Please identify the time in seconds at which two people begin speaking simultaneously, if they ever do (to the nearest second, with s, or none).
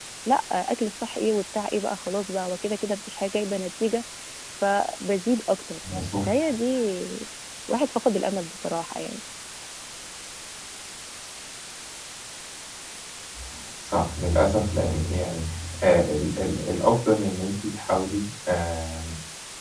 none